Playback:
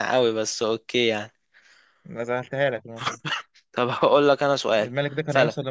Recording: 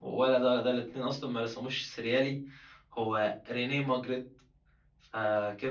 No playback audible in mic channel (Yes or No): Yes